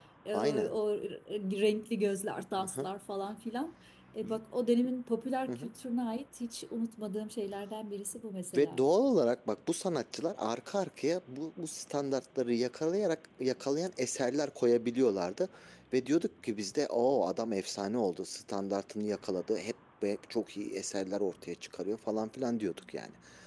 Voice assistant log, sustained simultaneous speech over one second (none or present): none